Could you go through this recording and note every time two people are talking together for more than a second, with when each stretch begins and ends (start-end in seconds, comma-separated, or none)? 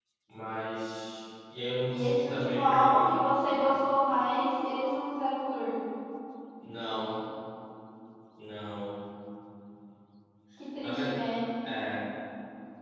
1.9-3.1